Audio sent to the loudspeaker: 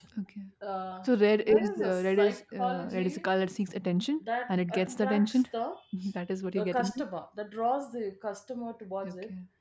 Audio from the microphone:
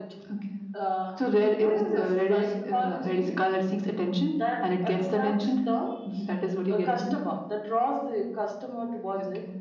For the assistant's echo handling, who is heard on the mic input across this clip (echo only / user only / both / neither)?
echo only